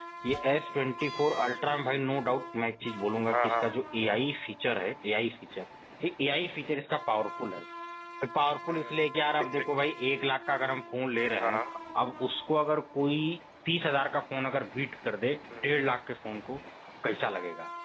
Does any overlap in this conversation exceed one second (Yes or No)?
No